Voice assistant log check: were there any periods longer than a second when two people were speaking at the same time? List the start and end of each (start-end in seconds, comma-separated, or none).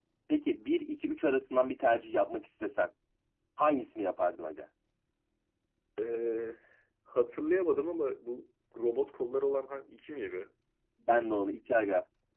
none